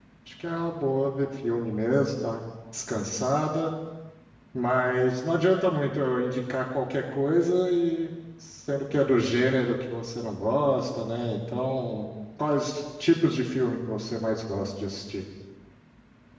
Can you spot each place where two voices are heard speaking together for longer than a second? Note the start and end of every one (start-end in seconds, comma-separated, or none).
none